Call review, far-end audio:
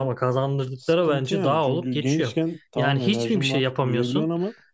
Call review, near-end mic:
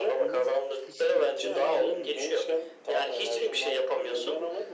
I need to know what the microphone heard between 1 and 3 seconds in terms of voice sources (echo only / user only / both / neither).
both